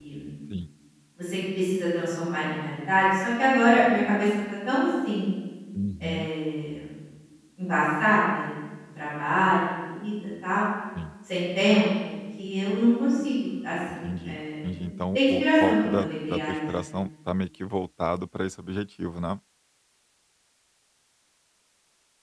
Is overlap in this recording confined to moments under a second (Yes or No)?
No